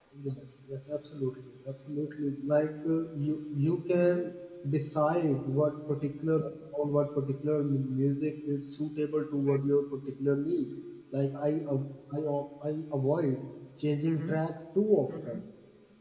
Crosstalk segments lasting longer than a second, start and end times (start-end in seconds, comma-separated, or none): none